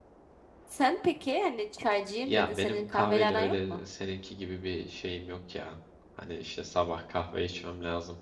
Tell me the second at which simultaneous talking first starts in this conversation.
2.2 s

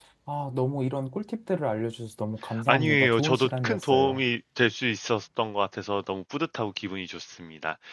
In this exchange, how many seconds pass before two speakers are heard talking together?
2.7 s

